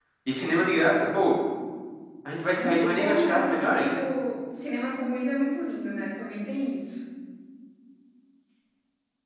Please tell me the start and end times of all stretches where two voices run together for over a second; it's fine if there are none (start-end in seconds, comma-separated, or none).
2.5-4.0